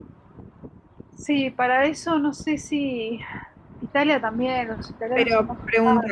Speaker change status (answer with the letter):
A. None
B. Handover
B